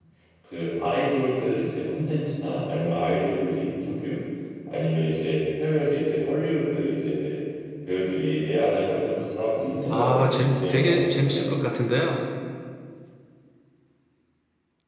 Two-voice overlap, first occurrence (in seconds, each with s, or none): 9.9 s